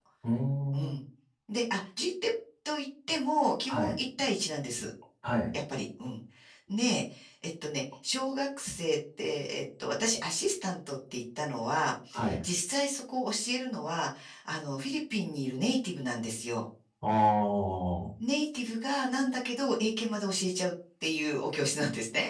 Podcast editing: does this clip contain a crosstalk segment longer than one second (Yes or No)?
No